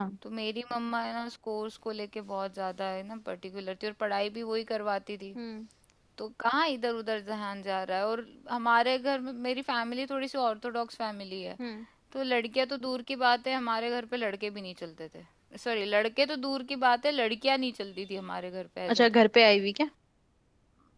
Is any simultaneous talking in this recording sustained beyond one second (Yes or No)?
No